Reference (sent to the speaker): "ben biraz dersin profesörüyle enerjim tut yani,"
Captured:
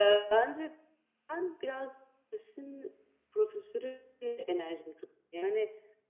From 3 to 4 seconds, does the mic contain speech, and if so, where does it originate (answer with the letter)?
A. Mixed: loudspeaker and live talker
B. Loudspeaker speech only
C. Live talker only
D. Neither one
B